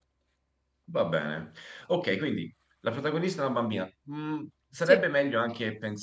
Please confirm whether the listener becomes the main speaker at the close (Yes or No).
No